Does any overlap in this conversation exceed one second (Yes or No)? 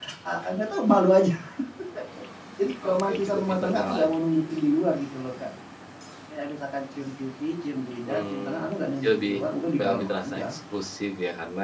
Yes